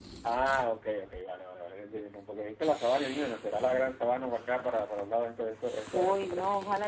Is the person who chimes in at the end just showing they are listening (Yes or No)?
No